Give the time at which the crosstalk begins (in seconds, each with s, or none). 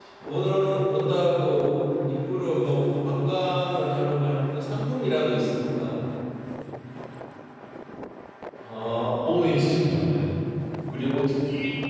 none